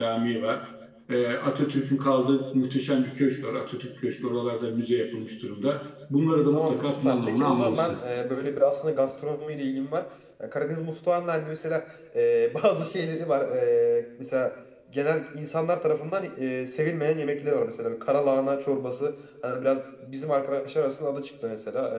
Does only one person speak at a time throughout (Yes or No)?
No